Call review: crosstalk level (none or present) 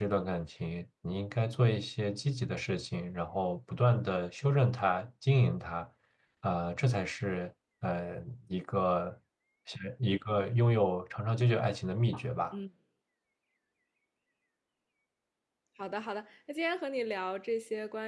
none